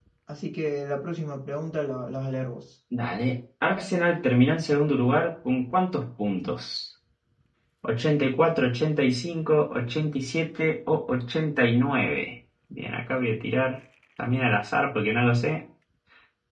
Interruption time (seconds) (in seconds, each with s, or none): none